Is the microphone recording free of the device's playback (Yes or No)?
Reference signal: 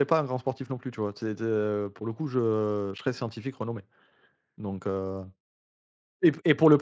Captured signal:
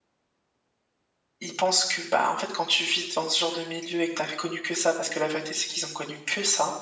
Yes